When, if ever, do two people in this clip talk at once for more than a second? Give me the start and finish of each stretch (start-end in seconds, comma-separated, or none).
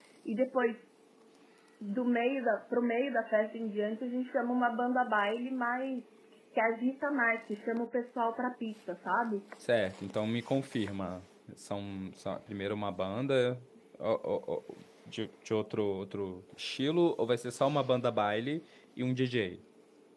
none